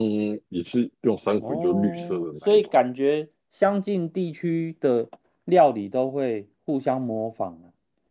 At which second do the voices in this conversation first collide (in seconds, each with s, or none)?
1.4 s